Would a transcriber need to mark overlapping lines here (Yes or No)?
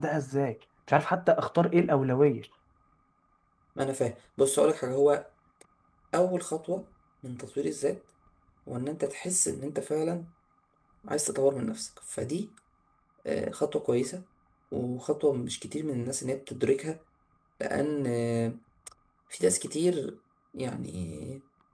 No